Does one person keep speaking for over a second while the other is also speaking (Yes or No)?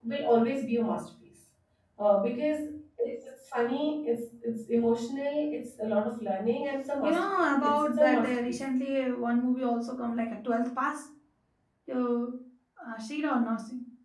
Yes